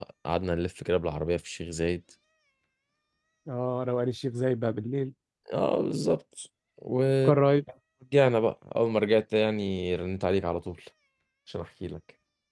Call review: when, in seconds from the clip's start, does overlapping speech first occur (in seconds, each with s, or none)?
none